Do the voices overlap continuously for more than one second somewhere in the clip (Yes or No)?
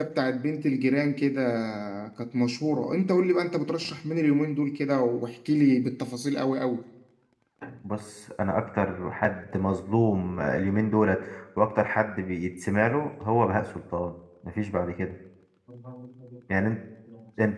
No